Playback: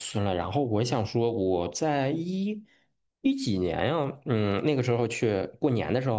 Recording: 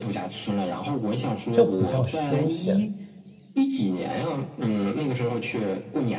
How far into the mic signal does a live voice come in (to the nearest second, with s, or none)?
2 s